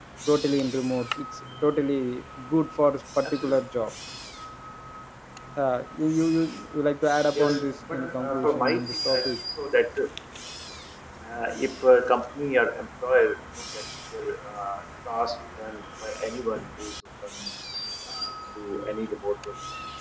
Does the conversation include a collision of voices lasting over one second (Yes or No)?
Yes